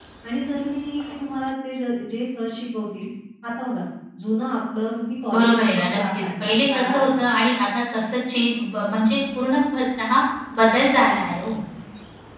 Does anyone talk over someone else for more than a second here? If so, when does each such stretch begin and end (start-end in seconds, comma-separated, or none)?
5.3-7.2